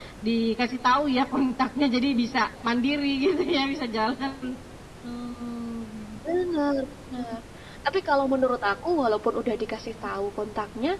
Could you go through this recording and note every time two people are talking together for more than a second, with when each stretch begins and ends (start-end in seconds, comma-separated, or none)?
none